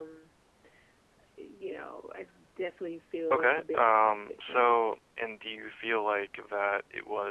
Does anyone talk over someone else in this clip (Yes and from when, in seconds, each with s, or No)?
Yes, from 3.3 s